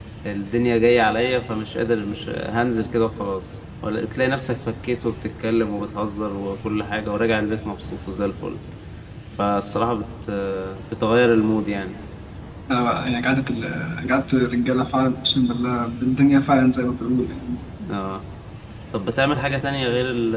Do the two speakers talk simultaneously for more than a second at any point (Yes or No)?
No